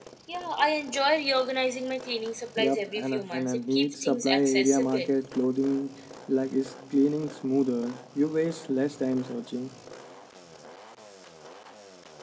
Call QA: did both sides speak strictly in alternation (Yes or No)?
No